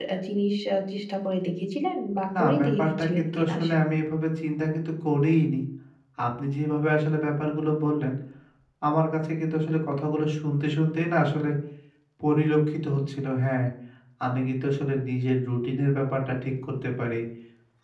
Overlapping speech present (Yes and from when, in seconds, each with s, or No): Yes, from 2.3 s